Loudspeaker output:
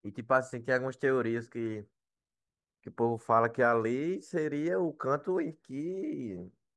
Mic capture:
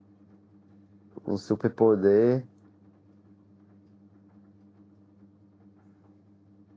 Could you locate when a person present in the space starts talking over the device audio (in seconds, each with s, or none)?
1.2 s